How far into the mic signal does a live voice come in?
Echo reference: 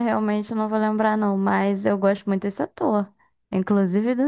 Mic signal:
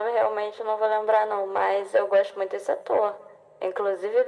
none

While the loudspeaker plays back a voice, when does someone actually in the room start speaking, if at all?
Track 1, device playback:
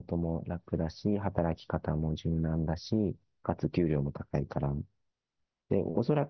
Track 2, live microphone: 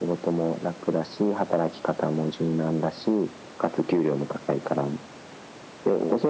none

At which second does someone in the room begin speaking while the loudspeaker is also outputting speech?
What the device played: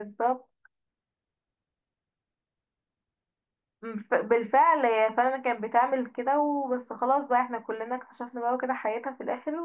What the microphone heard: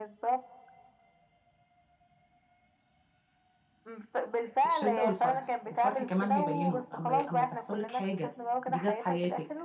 4.7 s

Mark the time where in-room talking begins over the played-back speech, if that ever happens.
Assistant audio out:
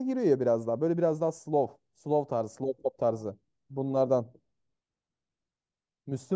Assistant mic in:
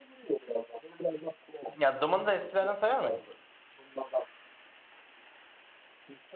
1.8 s

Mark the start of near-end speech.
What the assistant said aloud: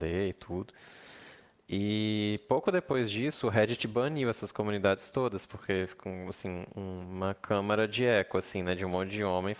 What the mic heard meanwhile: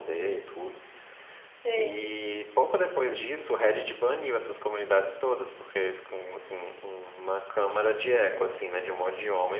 1.6 s

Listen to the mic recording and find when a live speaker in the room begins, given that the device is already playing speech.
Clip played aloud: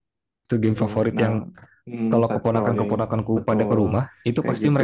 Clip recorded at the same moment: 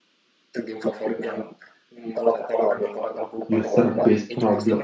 3.6 s

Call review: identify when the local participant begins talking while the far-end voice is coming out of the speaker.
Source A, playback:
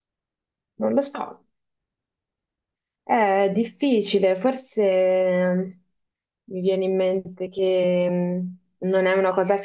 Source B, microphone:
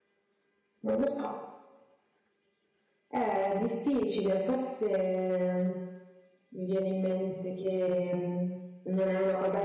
none

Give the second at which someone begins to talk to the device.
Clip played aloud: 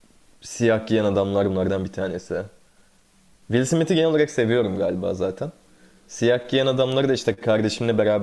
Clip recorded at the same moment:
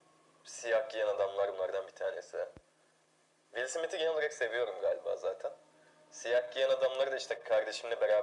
none

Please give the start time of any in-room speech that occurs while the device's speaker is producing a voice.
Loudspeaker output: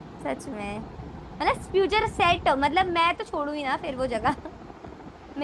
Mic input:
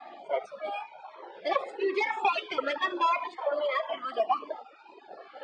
none

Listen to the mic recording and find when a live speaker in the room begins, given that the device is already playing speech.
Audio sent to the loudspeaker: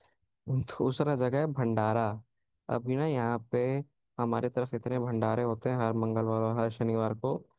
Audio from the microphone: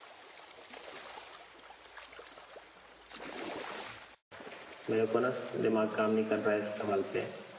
4.9 s

